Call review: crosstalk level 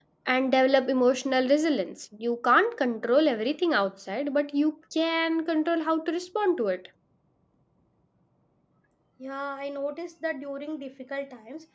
none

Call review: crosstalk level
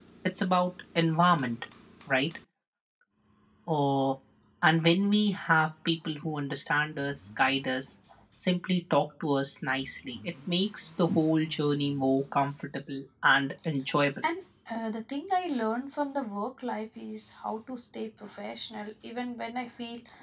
none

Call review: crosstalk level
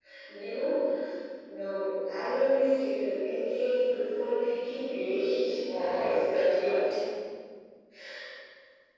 present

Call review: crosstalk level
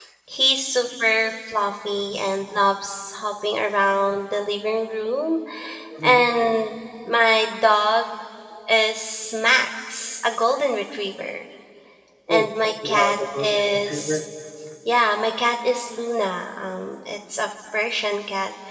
present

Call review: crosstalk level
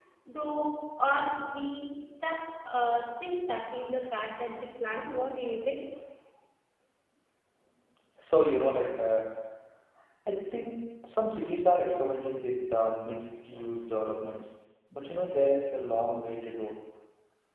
none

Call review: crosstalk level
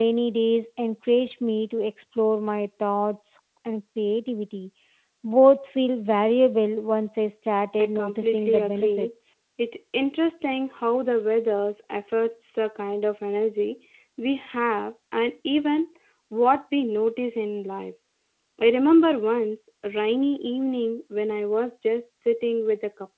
present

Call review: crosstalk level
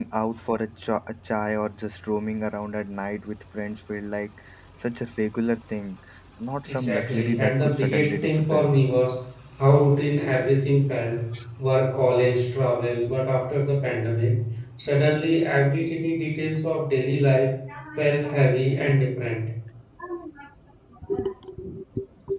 present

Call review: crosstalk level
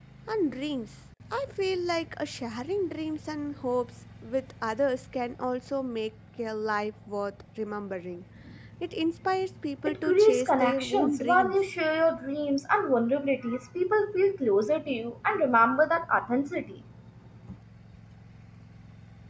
present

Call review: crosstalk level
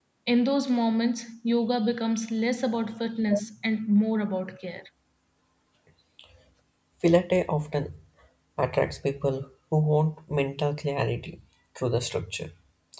none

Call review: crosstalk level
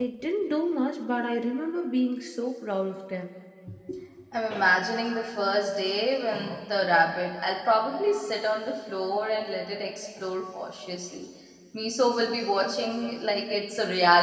none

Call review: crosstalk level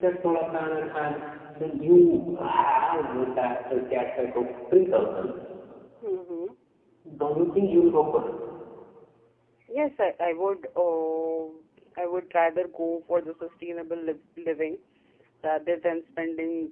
none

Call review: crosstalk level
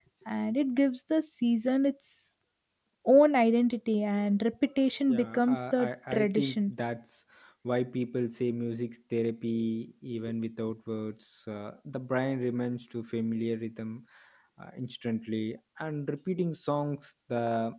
present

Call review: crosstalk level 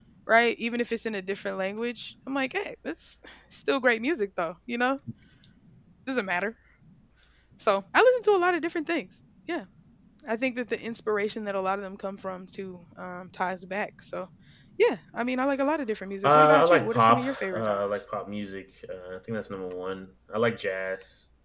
present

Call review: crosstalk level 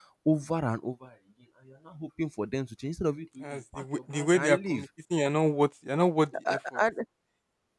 present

